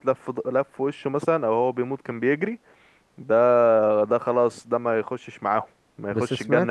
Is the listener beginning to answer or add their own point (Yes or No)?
Yes